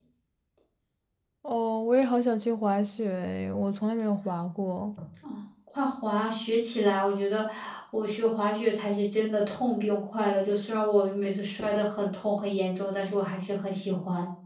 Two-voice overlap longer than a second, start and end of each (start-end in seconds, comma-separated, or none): none